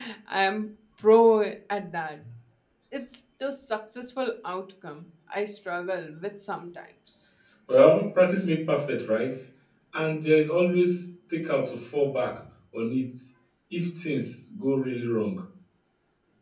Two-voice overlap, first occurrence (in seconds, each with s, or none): none